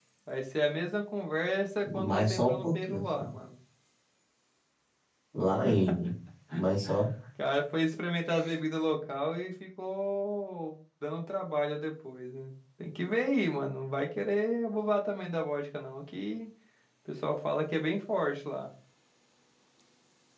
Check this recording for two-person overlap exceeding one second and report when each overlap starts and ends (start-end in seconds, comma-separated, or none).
1.9-3.3